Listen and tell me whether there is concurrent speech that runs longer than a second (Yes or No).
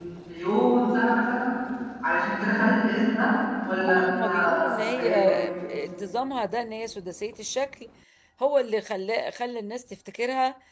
Yes